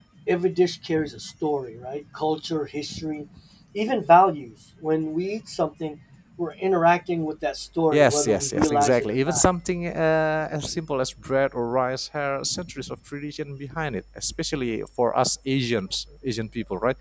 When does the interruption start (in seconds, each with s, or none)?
7.9 s